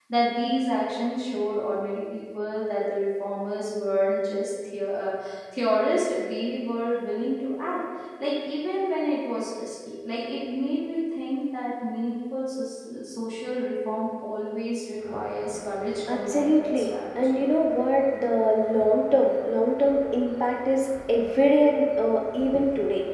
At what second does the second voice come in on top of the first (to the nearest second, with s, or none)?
16 s